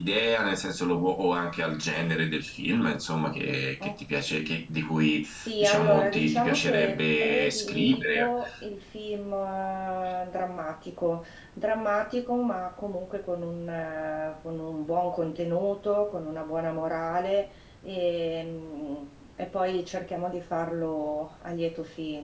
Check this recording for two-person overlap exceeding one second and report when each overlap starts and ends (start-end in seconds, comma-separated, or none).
5.2-8.3